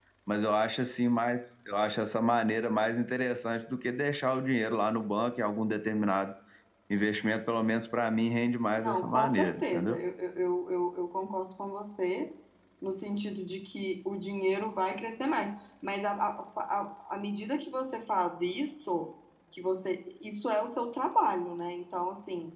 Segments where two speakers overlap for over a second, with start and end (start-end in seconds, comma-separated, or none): 8.8-10.0